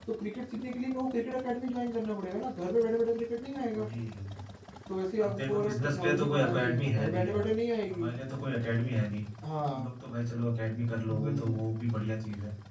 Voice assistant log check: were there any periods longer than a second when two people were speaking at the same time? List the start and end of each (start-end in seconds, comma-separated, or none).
5.2-7.5